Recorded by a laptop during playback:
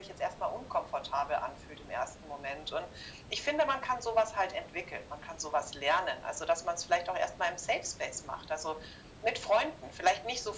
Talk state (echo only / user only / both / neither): echo only